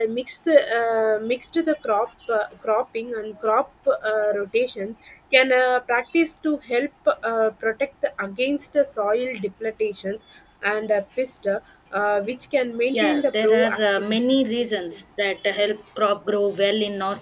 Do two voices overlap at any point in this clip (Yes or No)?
Yes